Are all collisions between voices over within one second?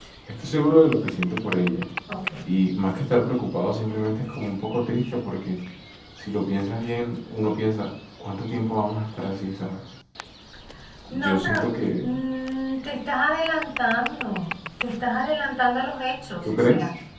Yes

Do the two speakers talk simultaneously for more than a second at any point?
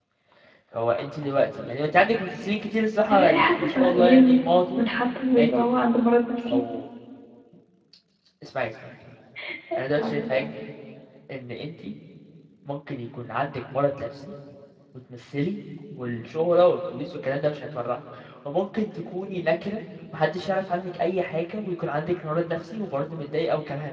Yes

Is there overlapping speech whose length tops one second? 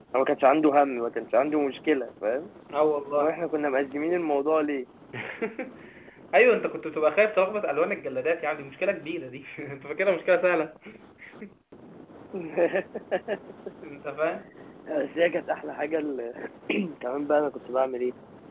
No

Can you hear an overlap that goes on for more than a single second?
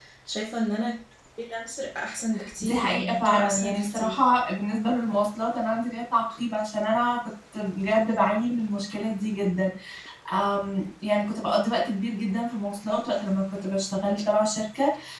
Yes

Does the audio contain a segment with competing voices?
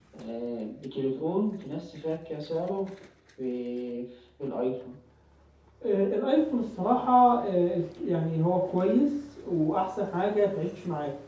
No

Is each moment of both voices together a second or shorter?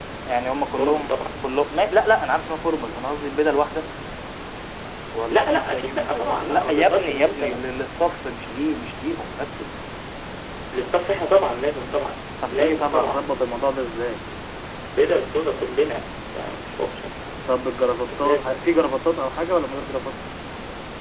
No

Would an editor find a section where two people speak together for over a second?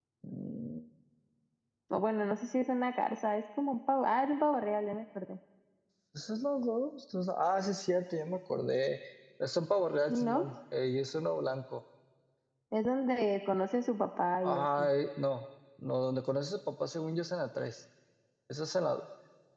No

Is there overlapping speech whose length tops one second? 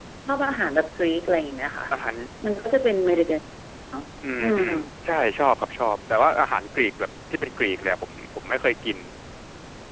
No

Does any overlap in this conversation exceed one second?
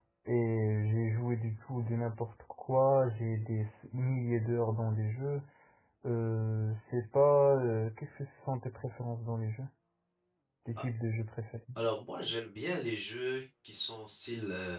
No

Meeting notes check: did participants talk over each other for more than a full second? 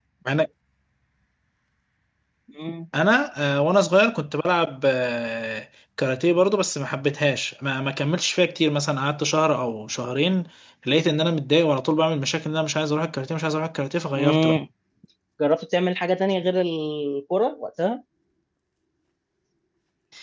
No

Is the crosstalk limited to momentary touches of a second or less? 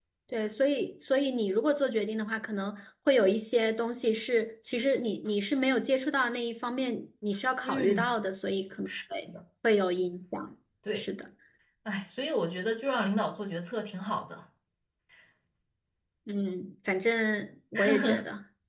Yes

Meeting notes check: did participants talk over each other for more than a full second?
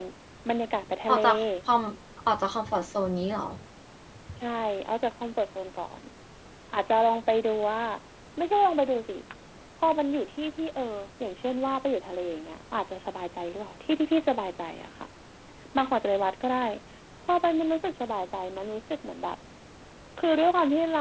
No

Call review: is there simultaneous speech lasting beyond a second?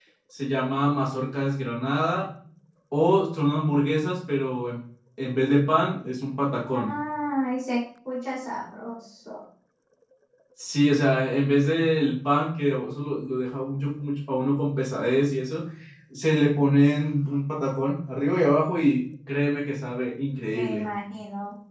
No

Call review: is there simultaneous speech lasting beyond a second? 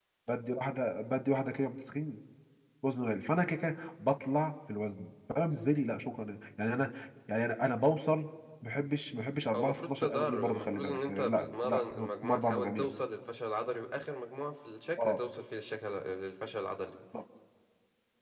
Yes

